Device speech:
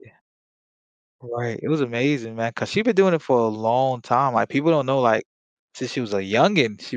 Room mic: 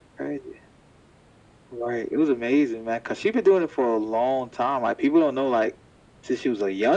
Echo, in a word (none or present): present